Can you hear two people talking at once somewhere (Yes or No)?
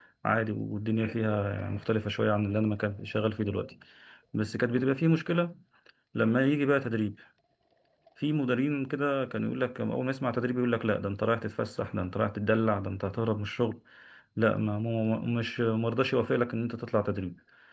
No